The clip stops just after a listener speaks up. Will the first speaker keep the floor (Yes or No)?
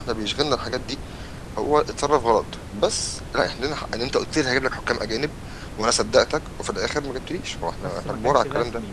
No